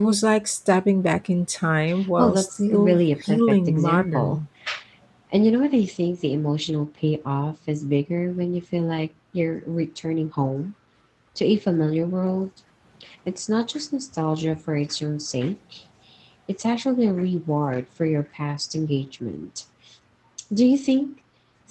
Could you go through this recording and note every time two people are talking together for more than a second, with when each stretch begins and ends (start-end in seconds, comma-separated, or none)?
2.2-4.4